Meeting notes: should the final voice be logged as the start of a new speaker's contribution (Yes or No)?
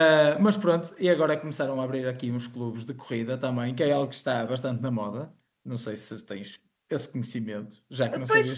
Yes